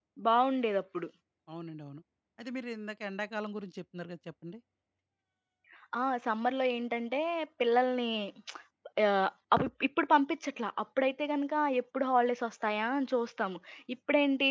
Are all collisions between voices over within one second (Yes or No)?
Yes